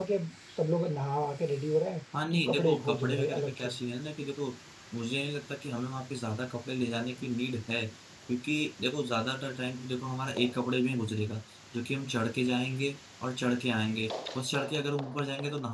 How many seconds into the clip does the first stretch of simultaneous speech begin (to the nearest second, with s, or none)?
2 s